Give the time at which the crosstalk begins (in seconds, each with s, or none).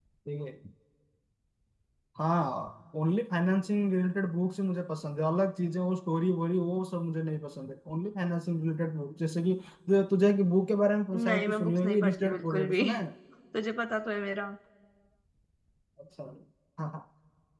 11.1 s